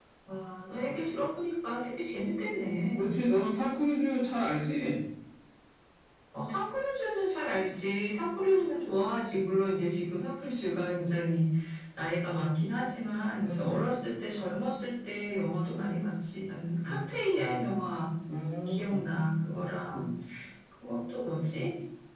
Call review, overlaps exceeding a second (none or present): none